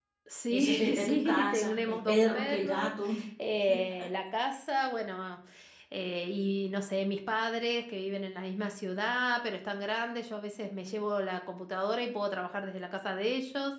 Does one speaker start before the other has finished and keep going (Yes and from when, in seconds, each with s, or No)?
Yes, from 0.5 s